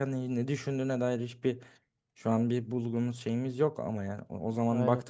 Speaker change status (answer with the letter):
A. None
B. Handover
A